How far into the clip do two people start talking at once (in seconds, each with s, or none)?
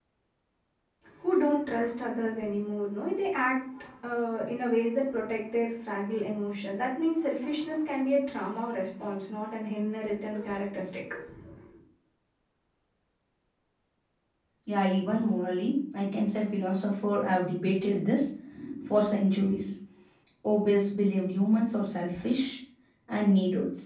none